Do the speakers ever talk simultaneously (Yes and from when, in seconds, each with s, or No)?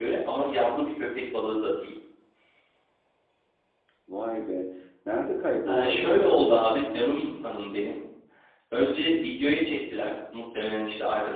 Yes, from 5.7 s